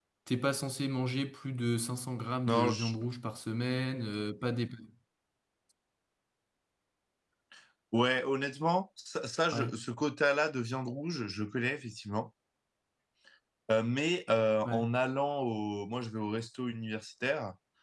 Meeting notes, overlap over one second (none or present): none